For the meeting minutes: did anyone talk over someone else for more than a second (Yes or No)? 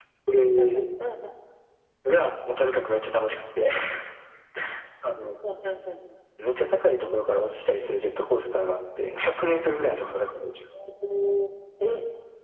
No